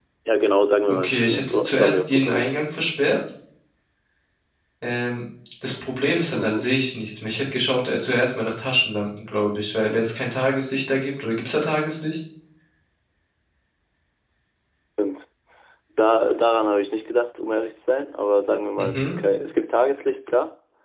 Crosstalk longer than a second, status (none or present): present